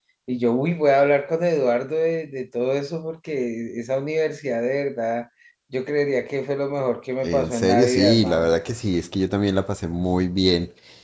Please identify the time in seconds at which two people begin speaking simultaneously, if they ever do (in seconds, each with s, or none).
7.2 s